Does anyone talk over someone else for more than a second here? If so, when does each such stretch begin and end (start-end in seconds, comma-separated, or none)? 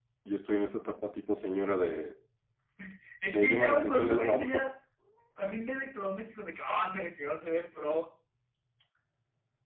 3.3-4.6